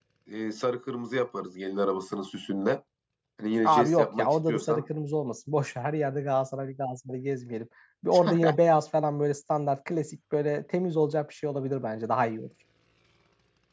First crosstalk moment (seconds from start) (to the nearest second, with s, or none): 4 s